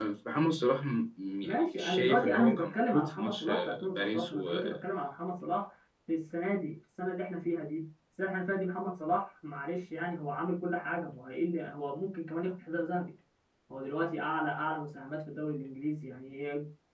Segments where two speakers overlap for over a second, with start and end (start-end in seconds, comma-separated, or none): 1.4-4.6